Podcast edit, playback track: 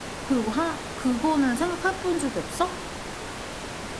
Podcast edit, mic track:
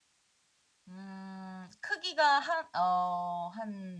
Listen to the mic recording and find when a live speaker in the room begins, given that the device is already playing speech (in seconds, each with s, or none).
0.9 s